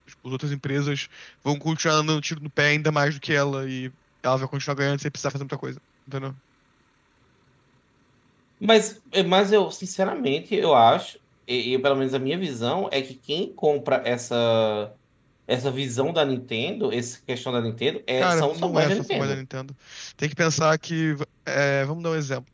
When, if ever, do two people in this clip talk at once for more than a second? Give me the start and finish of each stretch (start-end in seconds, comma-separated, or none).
18.2-19.4